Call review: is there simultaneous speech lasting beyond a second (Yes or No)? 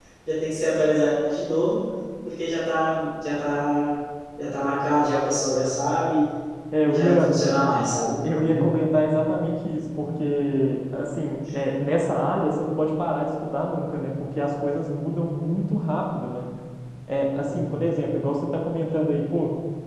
No